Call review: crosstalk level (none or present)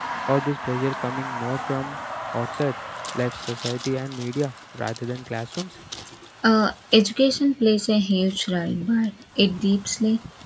none